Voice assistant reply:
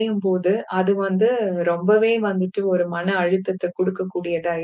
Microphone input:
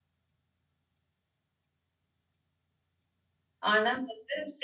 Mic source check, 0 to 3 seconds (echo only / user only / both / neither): neither